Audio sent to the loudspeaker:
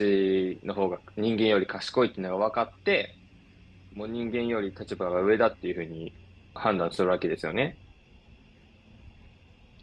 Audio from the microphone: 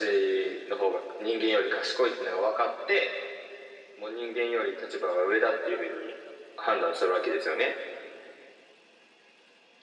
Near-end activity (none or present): none